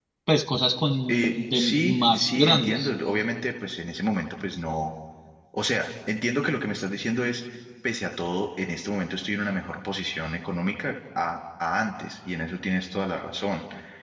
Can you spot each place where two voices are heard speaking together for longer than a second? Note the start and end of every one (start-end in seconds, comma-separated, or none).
1.1-2.9